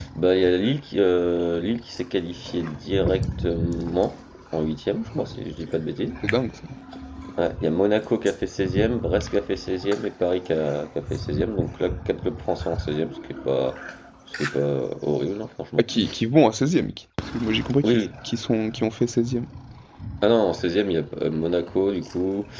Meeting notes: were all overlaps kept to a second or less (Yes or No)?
Yes